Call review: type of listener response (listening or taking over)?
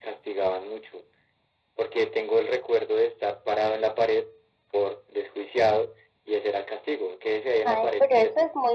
taking over